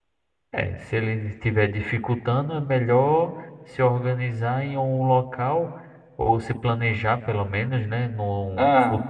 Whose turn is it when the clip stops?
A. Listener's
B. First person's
B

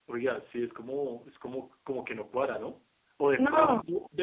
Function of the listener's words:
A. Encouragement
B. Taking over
A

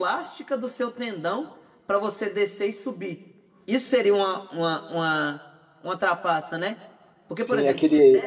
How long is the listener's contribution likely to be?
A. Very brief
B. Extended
B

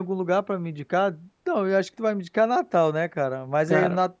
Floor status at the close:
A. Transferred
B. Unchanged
B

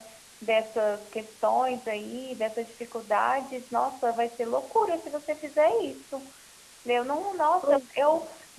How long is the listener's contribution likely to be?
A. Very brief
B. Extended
A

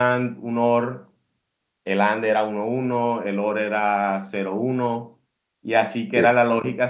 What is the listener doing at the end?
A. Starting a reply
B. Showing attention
B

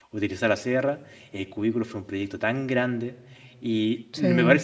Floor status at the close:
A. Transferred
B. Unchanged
B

